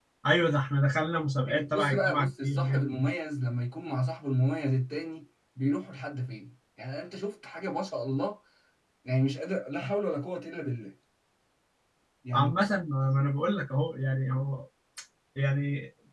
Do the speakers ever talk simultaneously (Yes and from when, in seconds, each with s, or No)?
Yes, from 1.5 s